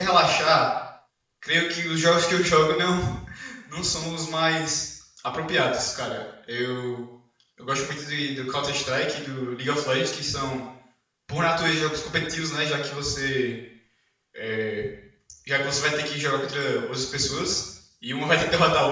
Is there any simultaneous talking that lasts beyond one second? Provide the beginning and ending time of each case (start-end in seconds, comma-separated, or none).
none